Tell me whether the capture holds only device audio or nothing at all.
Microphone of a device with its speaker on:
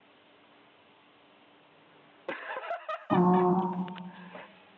No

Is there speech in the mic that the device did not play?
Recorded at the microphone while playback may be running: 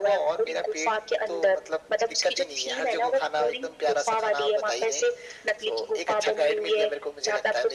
No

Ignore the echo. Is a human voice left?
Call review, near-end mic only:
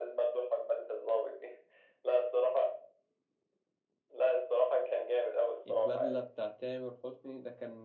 Yes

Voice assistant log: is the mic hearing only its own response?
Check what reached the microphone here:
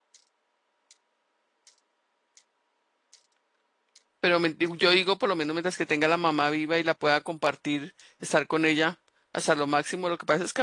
No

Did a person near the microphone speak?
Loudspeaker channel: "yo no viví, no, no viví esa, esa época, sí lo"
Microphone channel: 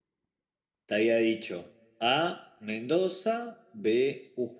Yes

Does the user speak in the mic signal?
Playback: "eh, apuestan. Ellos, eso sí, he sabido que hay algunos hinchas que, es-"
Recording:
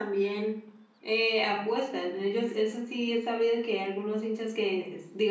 No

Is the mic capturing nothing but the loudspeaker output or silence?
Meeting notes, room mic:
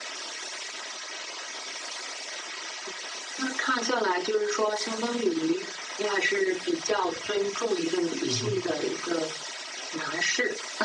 No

